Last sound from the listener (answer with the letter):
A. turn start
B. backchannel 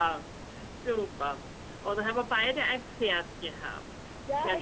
A